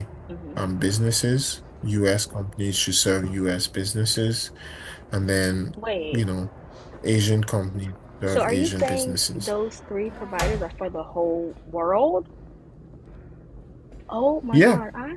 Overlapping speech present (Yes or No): Yes